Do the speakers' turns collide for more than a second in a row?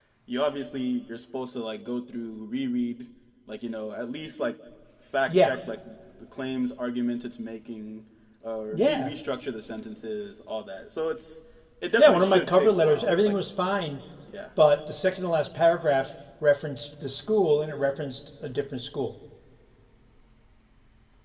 Yes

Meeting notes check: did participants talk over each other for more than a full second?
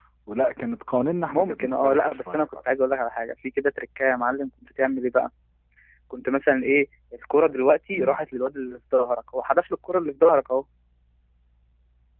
Yes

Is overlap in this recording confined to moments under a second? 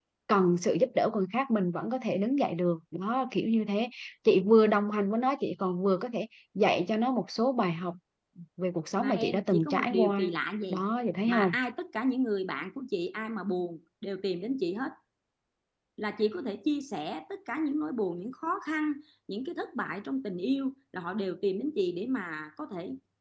No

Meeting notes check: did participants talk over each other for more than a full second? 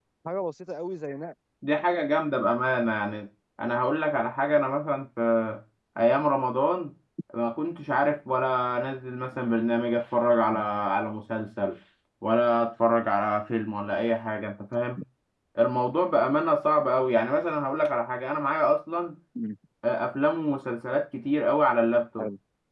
No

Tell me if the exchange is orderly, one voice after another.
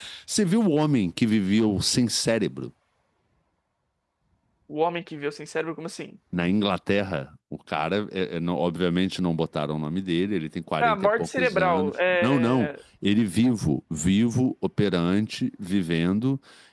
No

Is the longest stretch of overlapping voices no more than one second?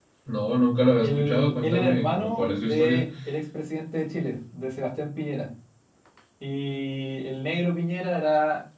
No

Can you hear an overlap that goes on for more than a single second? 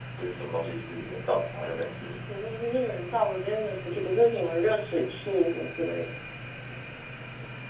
No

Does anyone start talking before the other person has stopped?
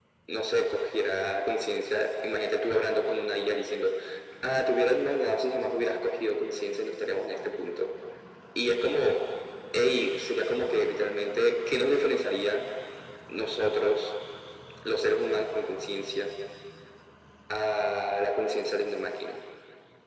No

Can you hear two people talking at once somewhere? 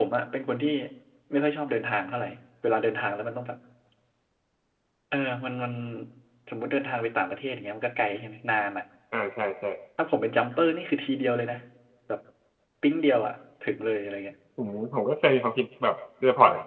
No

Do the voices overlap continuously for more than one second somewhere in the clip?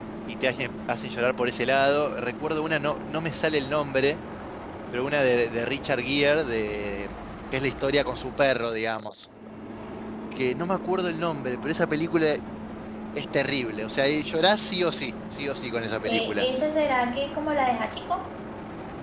No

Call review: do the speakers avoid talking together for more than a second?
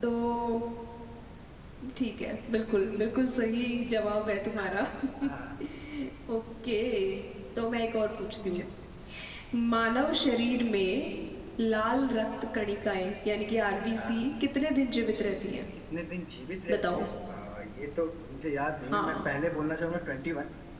Yes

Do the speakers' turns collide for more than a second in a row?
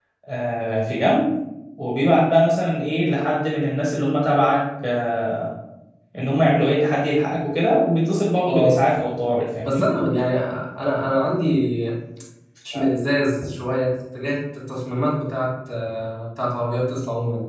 No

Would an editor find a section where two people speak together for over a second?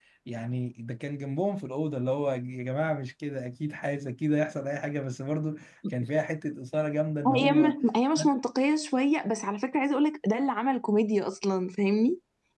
No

